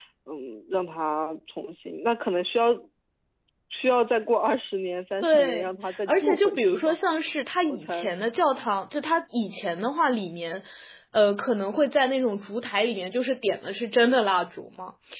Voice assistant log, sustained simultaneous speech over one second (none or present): present